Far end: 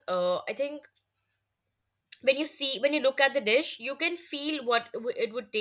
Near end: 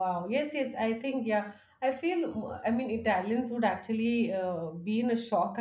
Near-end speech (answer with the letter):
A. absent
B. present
B